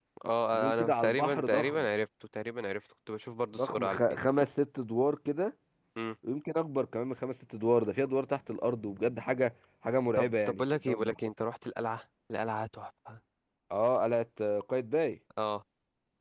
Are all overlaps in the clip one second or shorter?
No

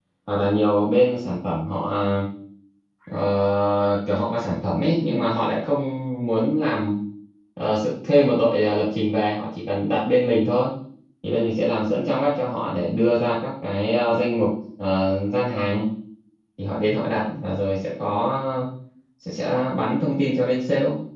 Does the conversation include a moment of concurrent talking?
No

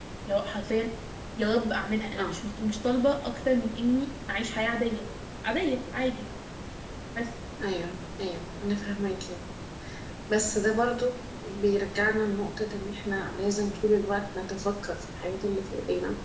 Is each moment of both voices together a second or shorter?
Yes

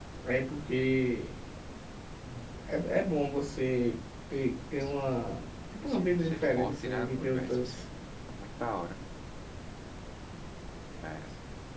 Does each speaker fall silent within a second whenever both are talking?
No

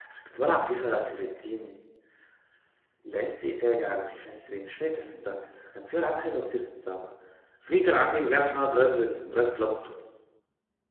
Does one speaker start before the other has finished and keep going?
No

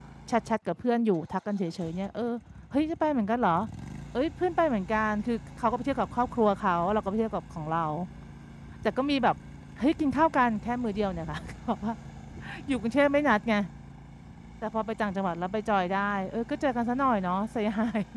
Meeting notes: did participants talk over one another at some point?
No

